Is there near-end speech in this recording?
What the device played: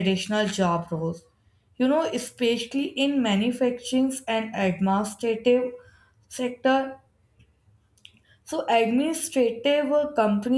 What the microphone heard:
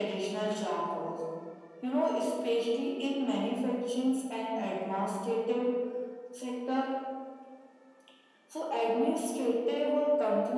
No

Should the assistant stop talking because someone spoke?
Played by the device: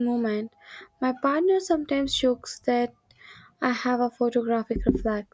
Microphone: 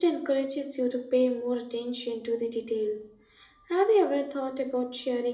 Yes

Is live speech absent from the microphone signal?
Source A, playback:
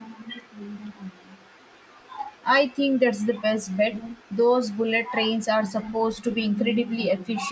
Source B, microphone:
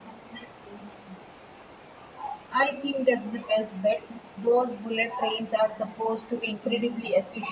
Yes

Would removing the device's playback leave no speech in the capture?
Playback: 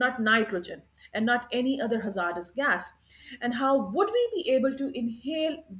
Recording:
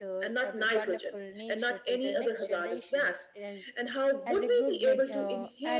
No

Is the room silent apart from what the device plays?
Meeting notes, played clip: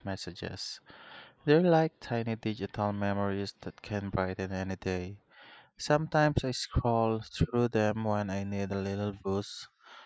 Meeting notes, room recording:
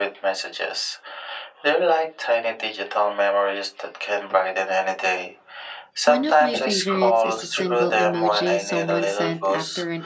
No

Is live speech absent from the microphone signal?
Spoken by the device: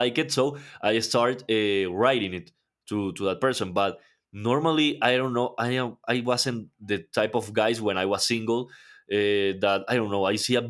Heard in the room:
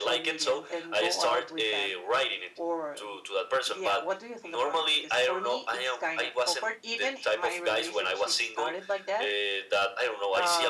No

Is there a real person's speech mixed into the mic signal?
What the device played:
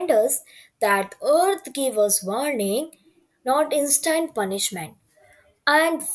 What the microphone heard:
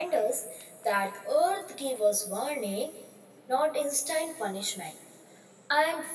No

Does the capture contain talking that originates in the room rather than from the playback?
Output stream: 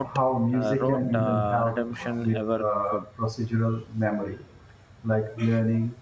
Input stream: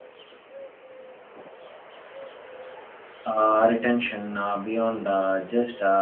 Yes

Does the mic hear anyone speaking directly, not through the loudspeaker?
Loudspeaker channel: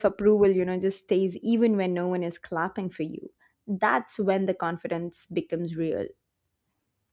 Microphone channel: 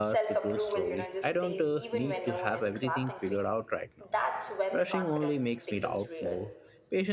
Yes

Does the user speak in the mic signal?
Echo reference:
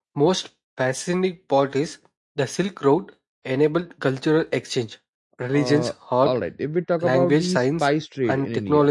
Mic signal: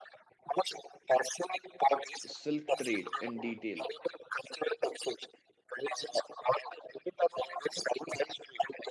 Yes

